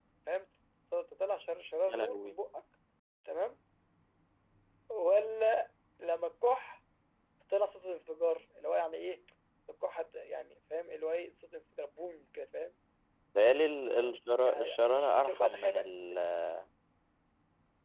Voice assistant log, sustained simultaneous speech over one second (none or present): present